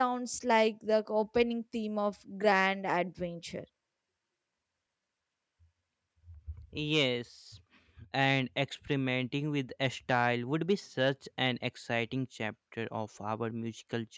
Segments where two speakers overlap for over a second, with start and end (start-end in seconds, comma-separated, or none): none